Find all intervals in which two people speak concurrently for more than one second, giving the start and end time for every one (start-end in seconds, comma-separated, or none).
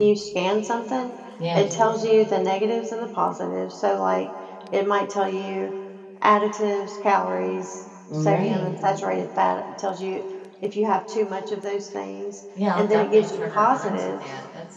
12.8-14.2